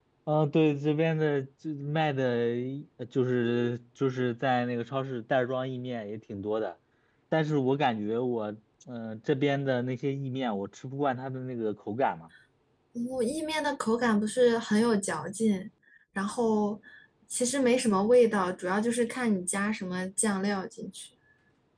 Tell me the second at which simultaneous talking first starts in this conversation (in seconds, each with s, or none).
none